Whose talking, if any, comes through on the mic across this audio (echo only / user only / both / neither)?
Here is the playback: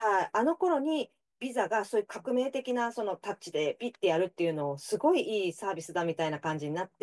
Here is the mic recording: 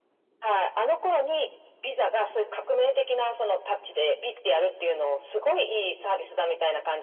echo only